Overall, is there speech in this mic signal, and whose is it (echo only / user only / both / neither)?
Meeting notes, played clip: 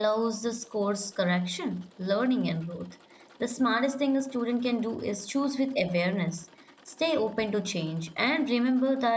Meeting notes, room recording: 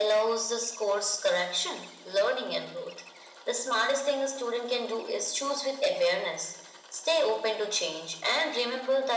echo only